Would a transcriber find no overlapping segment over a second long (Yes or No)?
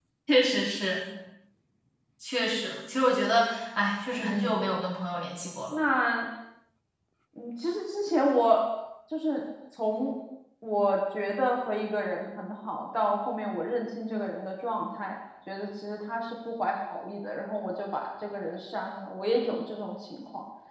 Yes